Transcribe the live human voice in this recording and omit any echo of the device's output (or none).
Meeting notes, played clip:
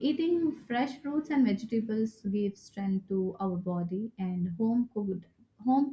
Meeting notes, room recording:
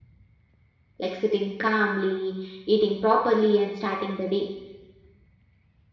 like sitting calmly, eating properly, and starting the day.